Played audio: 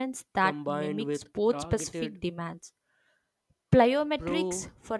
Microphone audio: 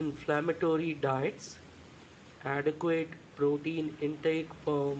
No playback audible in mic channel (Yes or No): Yes